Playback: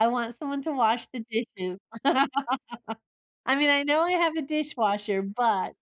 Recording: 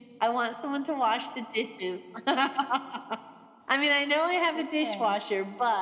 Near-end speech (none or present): present